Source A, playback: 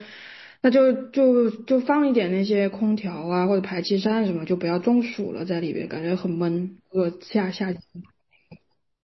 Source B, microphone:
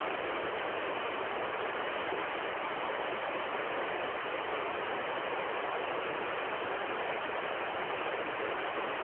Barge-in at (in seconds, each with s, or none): none